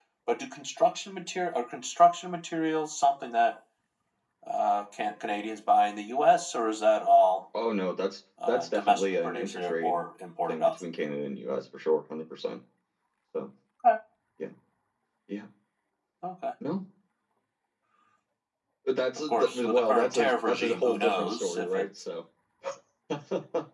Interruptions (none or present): present